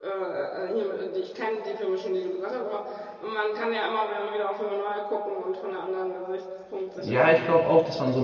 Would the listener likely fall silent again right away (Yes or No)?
No